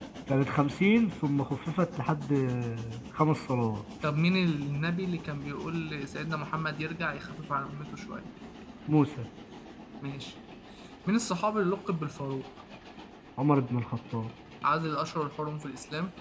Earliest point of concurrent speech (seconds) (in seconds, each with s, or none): none